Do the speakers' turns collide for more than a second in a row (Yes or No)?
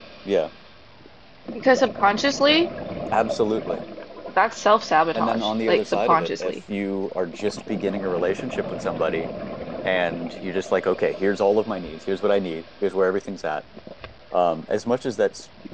Yes